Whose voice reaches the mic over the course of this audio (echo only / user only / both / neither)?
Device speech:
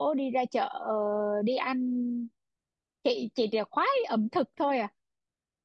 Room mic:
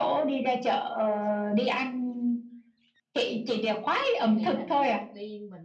both